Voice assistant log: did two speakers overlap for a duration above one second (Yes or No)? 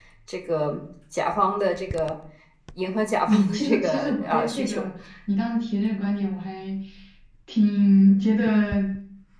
Yes